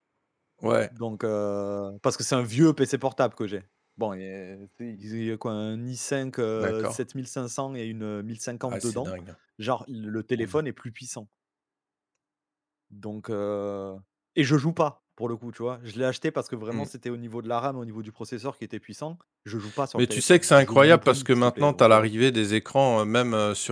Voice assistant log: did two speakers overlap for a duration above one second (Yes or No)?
Yes